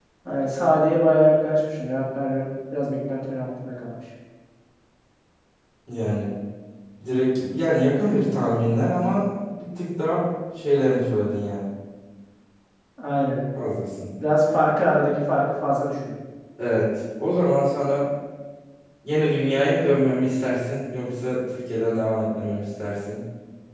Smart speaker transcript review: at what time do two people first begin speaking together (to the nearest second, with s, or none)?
none